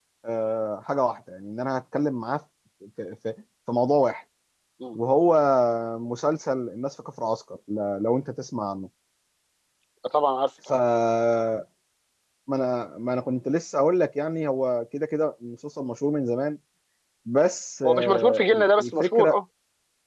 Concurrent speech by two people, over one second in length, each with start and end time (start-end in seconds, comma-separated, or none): 17.8-19.4